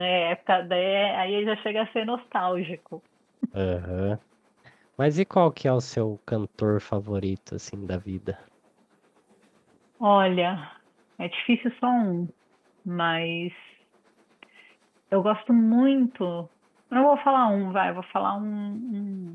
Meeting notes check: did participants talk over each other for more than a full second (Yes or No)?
No